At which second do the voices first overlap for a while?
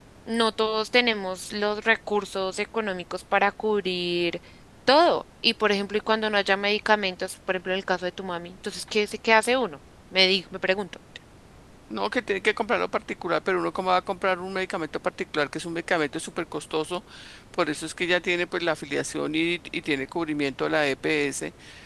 none

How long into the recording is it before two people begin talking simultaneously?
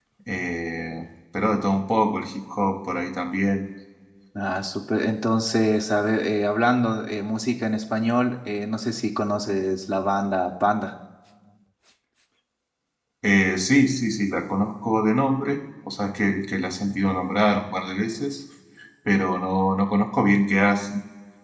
none

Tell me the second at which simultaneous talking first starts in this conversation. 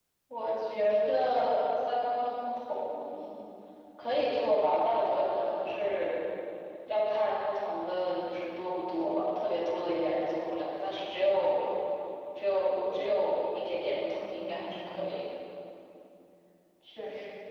13.9 s

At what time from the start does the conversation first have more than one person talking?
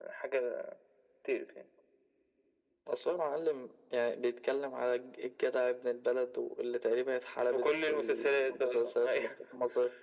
7.5 s

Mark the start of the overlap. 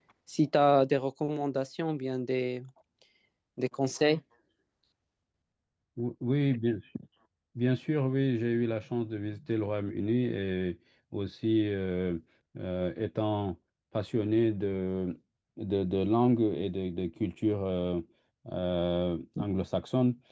none

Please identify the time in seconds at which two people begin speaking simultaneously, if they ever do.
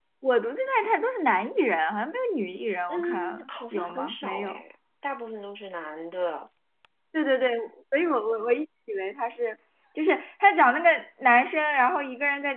2.9 s

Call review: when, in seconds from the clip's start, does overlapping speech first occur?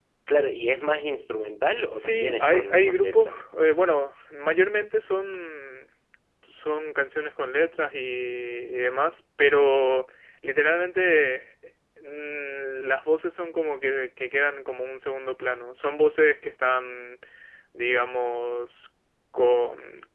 1.9 s

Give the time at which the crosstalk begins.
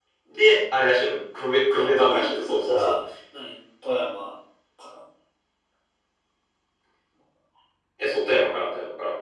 1.7 s

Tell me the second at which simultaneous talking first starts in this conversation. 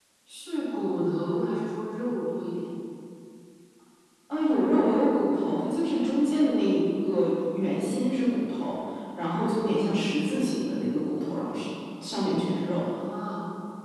none

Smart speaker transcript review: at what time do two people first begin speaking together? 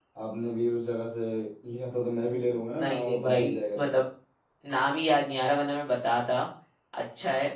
2.7 s

